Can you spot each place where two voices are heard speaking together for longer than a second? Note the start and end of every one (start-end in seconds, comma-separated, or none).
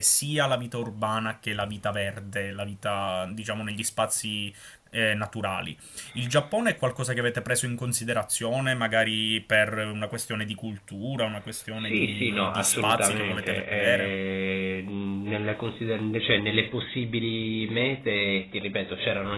11.7-14.1